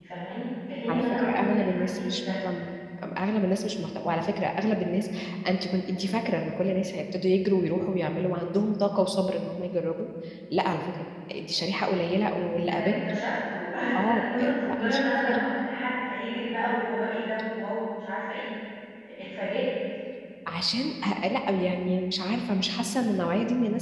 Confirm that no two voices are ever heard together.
No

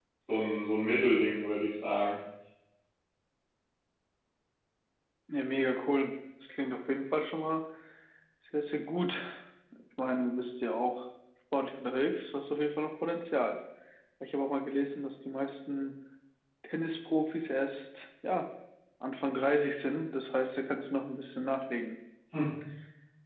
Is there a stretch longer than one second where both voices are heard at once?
No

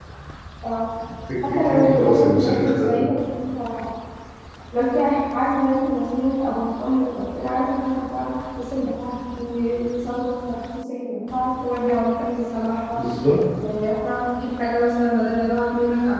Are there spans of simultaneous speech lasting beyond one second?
Yes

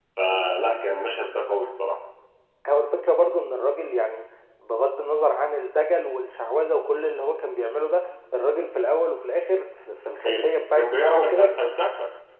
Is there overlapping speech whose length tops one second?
Yes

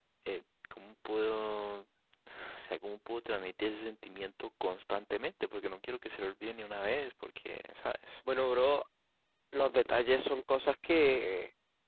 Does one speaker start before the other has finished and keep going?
No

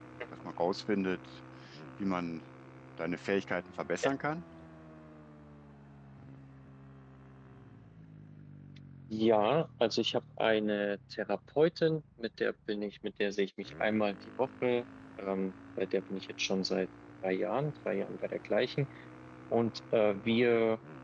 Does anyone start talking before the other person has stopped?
No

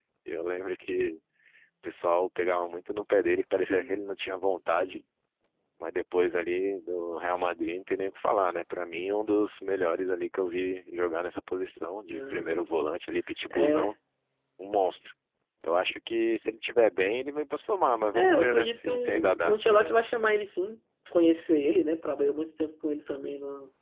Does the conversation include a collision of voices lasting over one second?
Yes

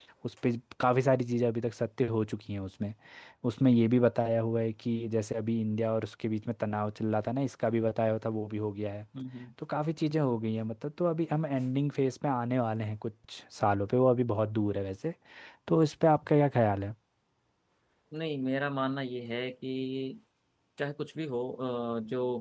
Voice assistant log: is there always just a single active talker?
Yes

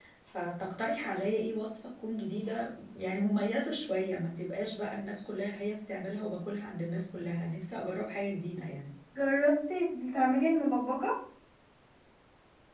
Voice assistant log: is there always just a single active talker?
Yes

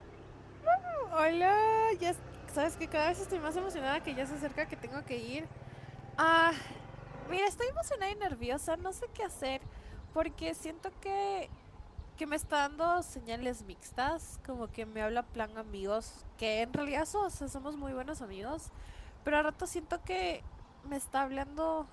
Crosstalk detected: No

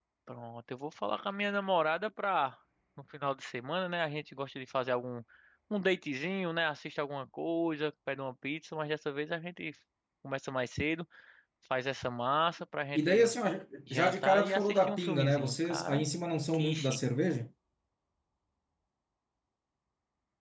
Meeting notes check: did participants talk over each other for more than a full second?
Yes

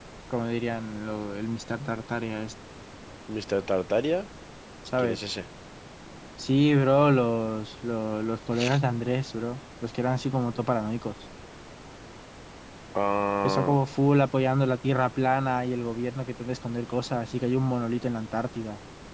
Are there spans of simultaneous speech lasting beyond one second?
No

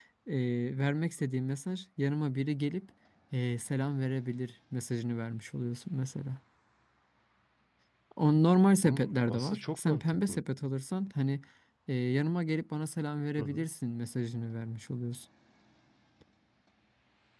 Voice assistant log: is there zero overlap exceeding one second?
No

